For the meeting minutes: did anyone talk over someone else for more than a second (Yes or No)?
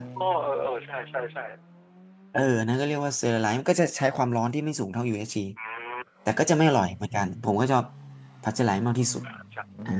No